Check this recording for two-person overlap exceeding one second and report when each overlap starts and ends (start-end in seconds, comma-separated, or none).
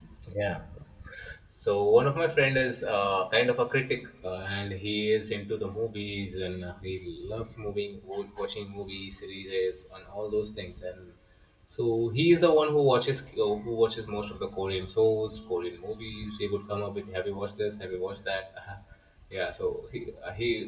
none